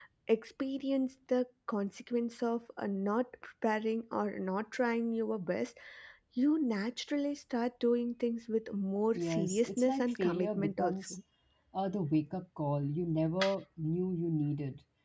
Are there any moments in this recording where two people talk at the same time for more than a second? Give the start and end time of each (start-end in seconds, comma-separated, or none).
9.1-11.2